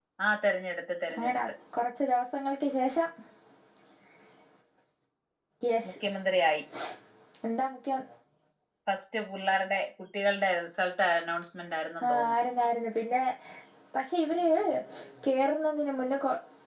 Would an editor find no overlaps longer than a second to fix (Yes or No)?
Yes